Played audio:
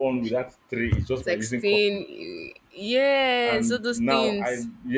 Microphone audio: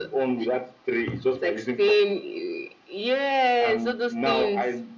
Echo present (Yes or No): Yes